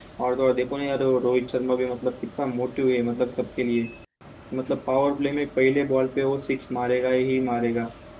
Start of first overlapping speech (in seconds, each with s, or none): none